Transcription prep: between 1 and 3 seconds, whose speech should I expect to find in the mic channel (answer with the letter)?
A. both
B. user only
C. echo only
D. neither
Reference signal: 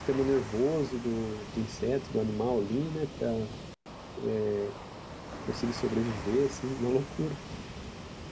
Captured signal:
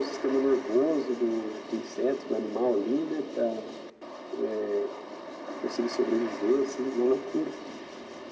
C